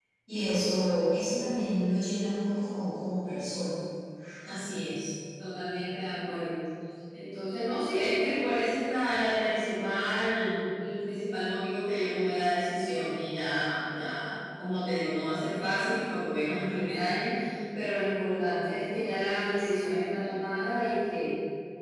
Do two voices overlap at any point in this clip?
No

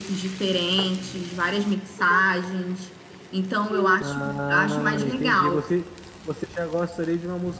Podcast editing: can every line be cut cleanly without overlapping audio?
No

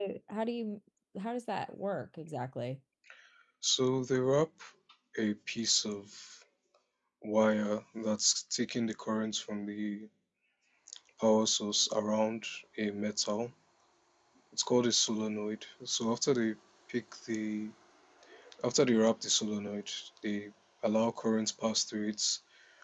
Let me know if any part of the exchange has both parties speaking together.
No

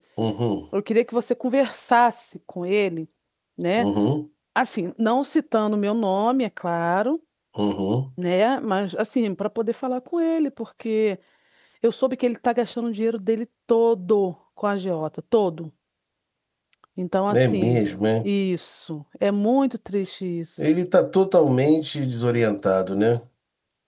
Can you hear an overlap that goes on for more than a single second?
No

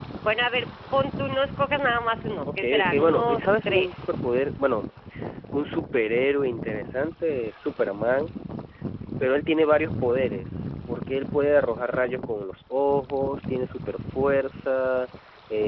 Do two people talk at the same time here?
Yes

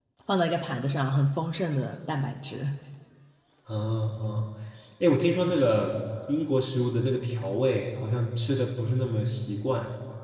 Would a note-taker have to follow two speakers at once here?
No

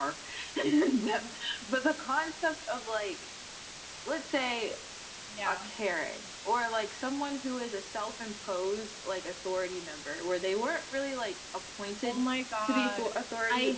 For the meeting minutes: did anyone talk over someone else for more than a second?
No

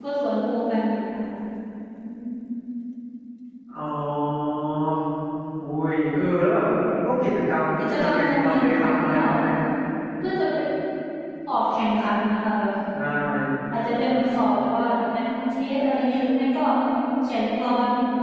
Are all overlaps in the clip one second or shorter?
No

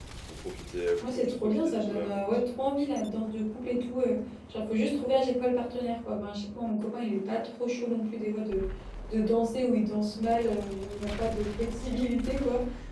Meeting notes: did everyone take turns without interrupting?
No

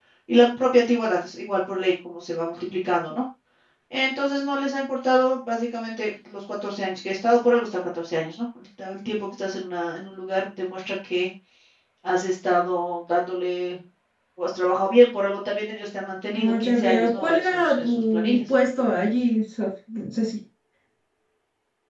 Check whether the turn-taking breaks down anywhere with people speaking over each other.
Yes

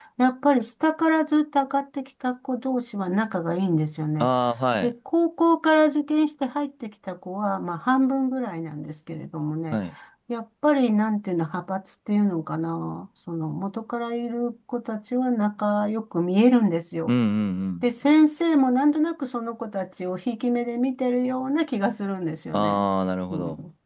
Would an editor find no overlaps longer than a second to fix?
Yes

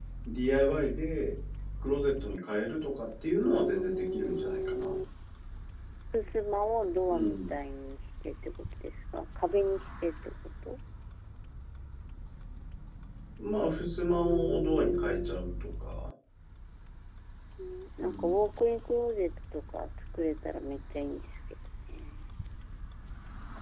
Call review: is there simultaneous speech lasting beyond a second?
Yes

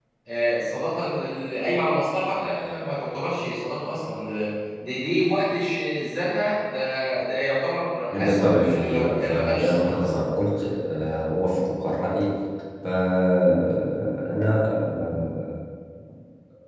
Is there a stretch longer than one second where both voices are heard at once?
Yes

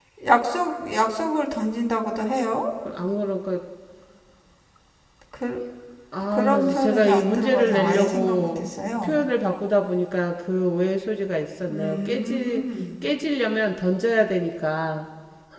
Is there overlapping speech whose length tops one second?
Yes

